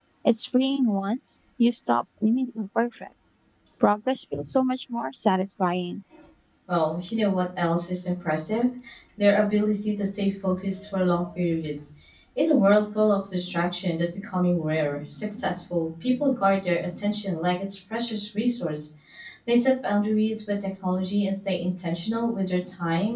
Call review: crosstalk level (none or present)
none